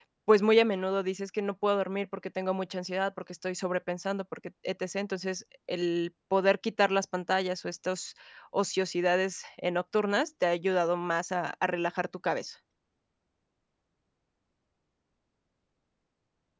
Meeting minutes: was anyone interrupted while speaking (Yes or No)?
No